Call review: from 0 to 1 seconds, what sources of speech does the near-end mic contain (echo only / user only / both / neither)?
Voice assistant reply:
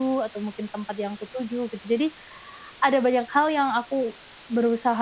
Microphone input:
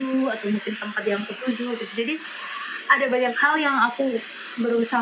echo only